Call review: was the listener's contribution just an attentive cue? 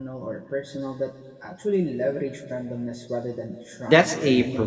No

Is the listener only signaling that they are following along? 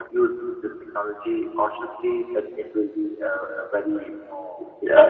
No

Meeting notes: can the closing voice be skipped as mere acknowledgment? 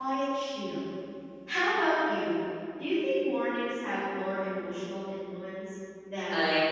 No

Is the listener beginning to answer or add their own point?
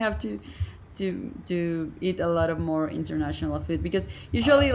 No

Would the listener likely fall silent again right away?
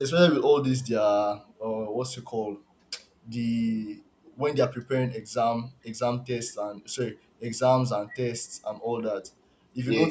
Yes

